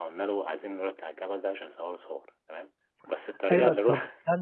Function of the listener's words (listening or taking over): taking over